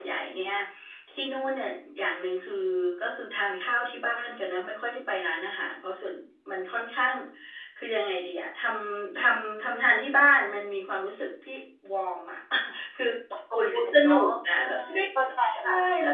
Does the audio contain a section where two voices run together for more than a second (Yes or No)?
Yes